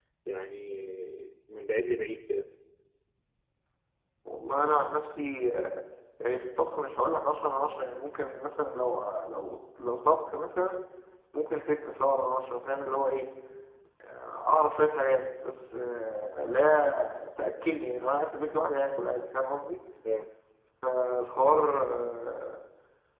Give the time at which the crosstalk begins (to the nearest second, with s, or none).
none